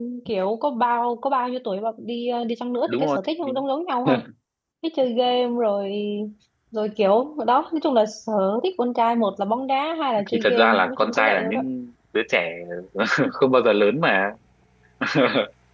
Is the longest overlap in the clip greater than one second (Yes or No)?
Yes